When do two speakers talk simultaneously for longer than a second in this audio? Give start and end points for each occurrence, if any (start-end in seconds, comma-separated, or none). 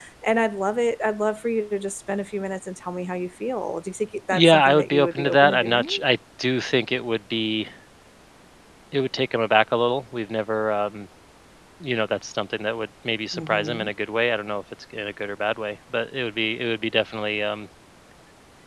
4.3-6.0